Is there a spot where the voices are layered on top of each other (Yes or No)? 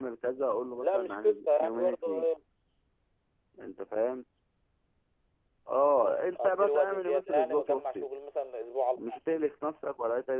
Yes